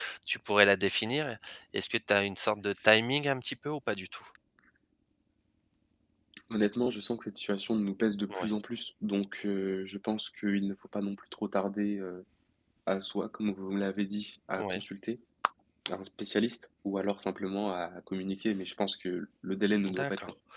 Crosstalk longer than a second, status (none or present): none